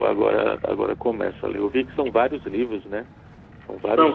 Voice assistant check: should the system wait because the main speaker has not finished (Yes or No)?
No